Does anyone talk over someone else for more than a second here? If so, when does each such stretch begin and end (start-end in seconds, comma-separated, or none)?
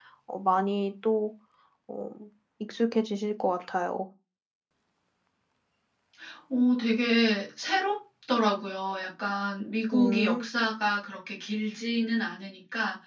none